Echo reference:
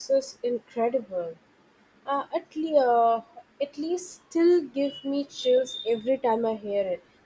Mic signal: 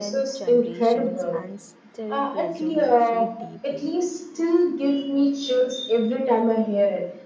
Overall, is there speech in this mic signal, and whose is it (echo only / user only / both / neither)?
both